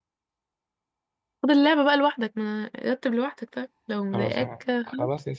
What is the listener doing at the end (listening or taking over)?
taking over